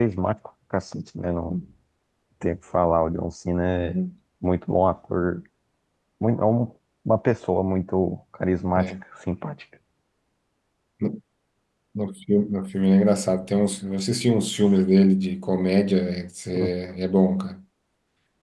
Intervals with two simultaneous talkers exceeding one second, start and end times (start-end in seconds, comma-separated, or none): none